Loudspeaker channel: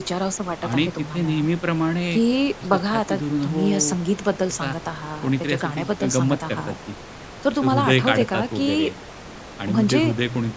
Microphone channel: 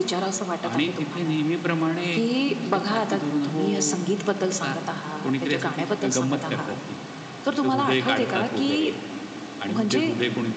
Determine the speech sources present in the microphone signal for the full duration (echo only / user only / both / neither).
echo only